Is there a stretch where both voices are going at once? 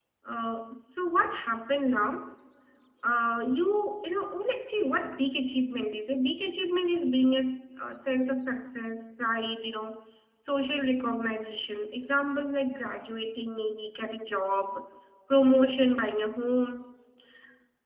No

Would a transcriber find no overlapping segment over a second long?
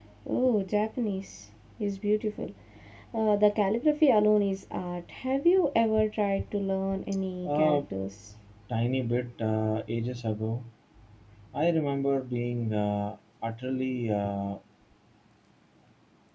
Yes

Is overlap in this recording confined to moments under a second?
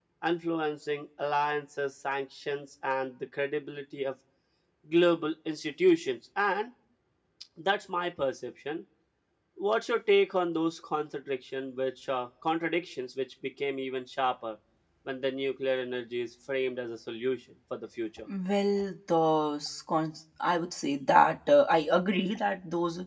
Yes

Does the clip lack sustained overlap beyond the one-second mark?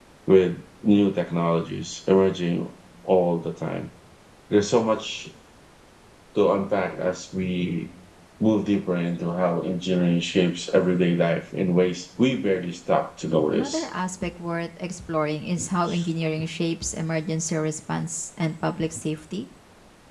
Yes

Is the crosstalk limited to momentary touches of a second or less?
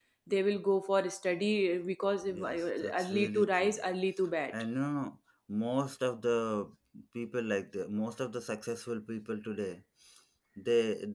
No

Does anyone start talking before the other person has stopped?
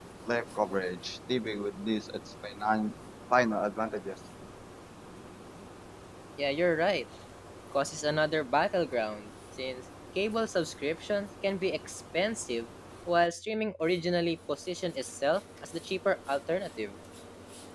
No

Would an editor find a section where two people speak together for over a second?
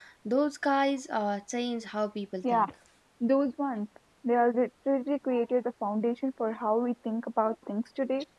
No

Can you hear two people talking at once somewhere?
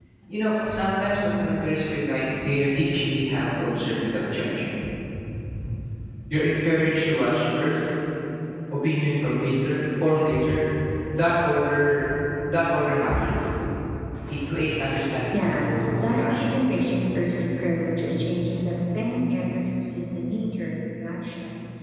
Yes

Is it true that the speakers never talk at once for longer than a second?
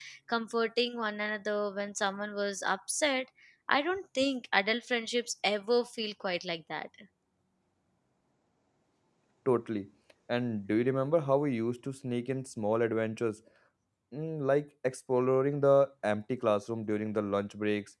Yes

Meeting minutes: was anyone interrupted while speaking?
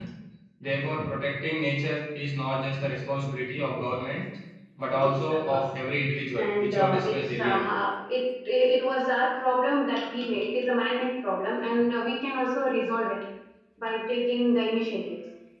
Yes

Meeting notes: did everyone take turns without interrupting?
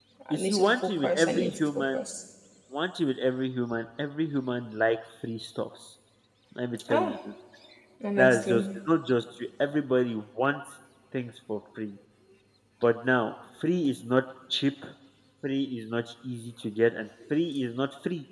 No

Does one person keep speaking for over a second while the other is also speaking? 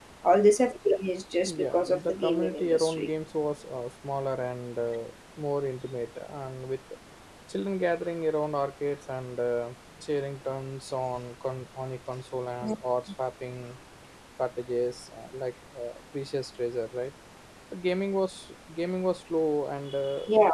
Yes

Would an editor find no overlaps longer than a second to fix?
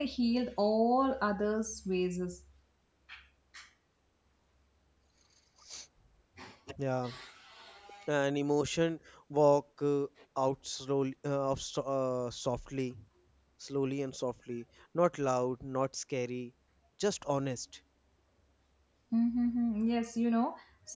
Yes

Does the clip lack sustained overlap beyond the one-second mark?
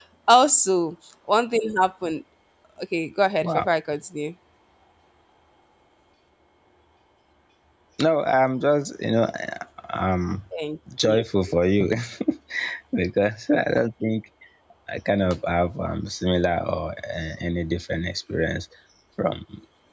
Yes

